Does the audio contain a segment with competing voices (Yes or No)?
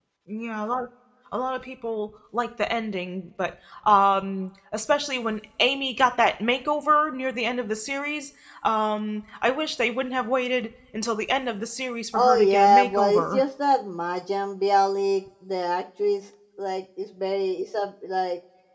Yes